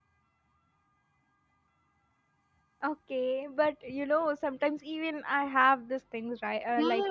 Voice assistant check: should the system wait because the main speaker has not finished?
No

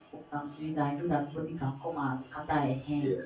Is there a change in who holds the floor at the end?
Yes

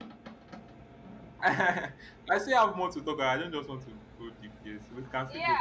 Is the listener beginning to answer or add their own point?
Yes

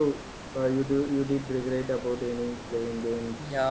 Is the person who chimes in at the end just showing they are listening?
No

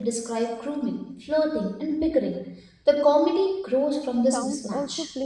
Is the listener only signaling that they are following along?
No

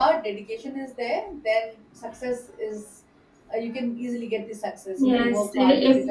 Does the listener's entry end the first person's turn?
Yes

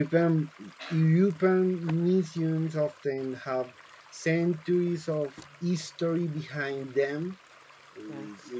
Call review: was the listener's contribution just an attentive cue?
Yes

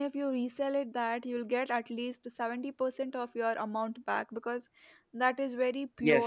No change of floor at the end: No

